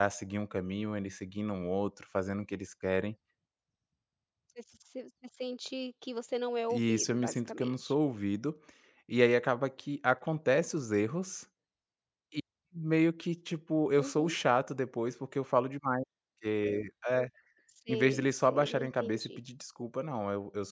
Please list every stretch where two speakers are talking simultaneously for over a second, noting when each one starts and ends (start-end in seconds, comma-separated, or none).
6.7-7.9, 17.9-19.4